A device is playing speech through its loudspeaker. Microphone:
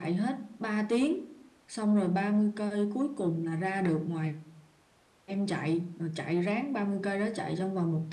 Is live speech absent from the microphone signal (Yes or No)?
Yes